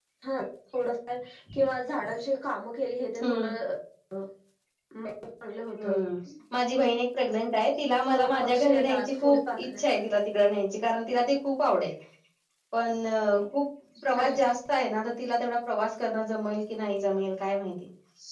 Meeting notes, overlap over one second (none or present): present